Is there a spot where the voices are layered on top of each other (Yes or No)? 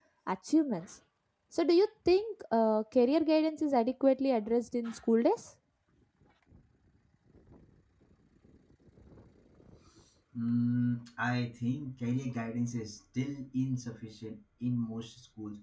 No